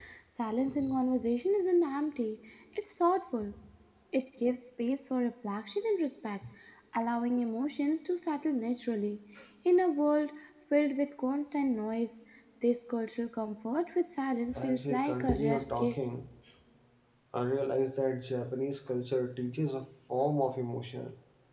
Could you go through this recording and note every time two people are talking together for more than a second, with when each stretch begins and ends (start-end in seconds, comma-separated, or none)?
14.6-15.9